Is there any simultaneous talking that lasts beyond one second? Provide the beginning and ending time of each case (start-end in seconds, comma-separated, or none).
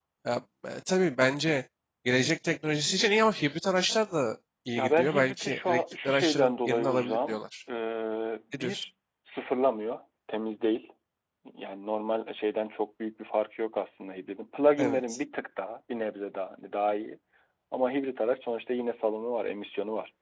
4.8-7.4